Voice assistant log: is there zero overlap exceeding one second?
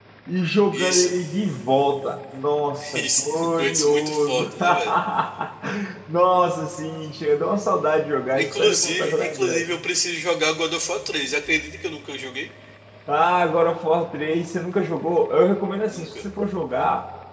No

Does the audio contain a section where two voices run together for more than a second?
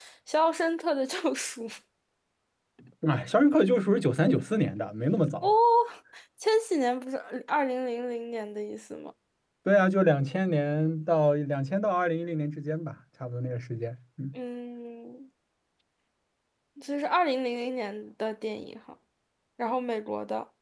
No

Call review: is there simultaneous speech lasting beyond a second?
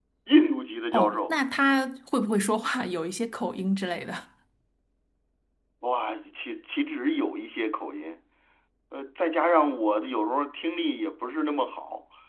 No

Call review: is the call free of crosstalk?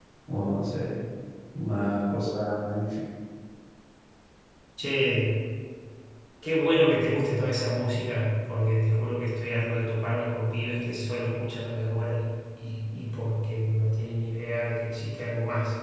Yes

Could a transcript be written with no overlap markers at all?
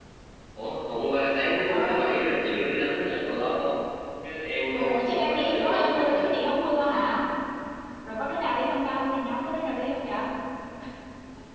No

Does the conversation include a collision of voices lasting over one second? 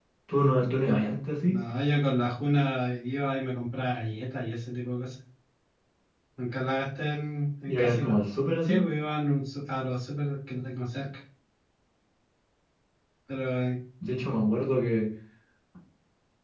No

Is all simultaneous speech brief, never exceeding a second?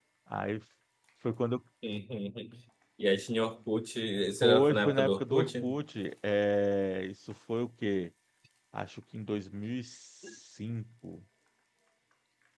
No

